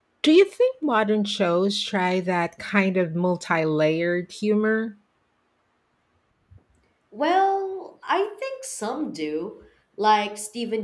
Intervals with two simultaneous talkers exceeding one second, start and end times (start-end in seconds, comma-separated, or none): none